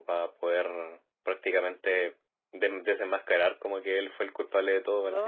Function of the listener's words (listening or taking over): taking over